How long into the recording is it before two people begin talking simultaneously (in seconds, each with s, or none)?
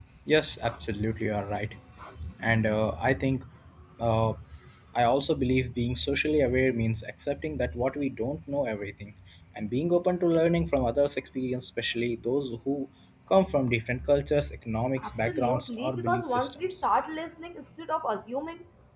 15.0 s